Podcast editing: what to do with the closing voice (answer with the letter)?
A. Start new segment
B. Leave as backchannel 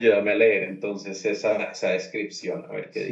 A